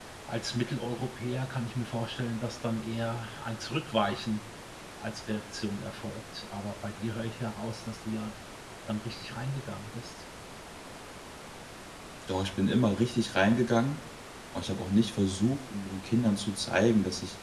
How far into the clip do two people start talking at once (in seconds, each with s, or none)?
none